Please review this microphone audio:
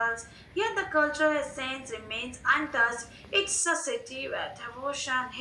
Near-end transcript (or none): none